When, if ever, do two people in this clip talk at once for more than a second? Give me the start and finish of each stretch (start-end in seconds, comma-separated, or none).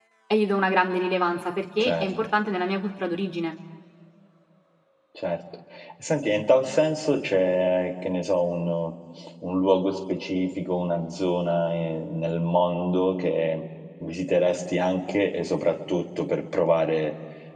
none